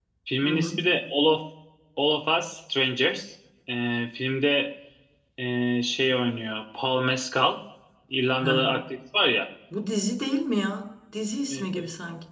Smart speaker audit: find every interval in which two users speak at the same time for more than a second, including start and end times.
none

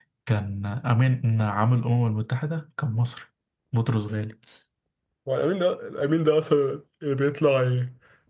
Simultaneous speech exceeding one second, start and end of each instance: none

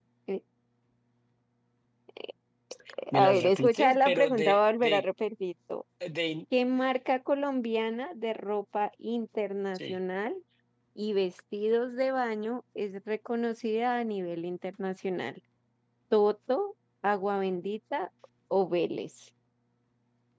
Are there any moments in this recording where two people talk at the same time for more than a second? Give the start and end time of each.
3.1-5.0

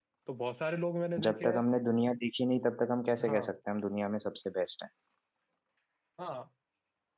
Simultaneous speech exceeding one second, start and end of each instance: none

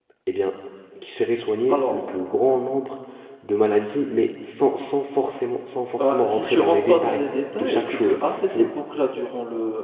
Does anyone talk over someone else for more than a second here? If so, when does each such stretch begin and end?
6.0-8.6

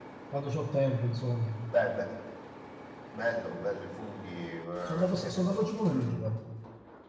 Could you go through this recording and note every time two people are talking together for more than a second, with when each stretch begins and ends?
4.8-6.3

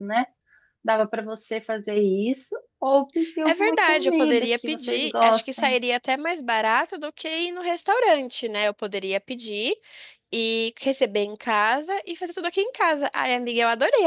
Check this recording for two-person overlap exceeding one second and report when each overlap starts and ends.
3.5-5.8

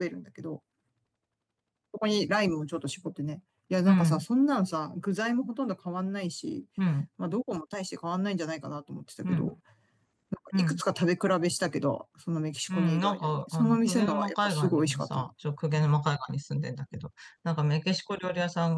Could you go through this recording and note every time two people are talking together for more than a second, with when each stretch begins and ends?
12.7-15.2

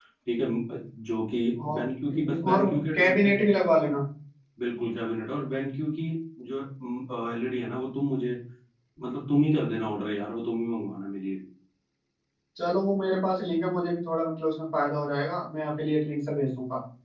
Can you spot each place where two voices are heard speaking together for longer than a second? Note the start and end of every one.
1.7-3.4

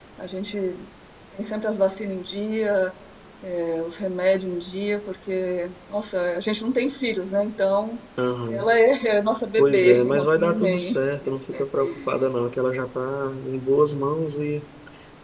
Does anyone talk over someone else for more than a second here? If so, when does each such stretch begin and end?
9.6-10.9

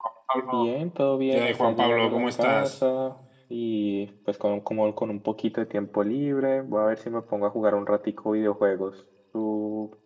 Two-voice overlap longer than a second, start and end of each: 1.3-2.7

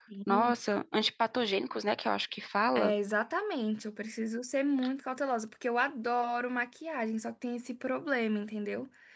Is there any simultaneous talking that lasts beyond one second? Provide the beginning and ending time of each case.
none

